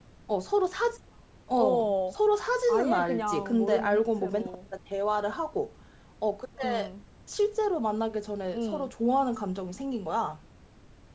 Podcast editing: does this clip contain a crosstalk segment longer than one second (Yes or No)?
Yes